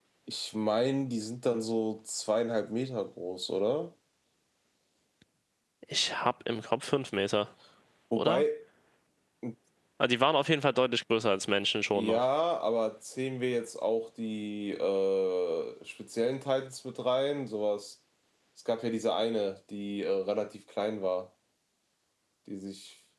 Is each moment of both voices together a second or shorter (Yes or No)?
Yes